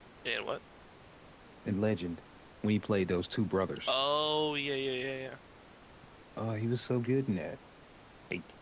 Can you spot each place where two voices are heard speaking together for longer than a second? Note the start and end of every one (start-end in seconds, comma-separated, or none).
none